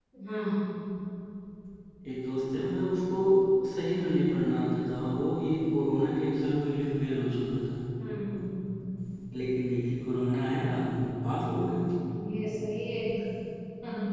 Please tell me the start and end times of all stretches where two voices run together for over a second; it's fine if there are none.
none

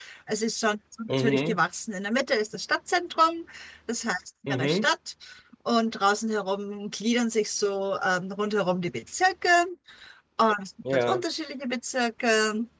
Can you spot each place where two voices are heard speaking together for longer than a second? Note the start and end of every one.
none

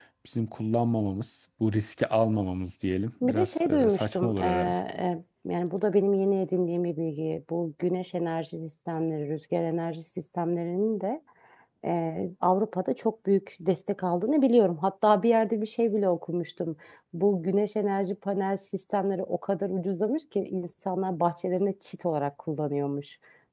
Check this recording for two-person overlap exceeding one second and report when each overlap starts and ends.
3.2-4.8

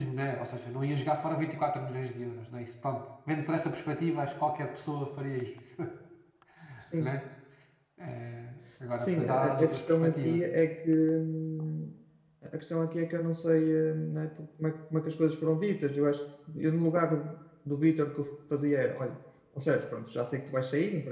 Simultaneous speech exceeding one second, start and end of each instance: 9.0-10.4

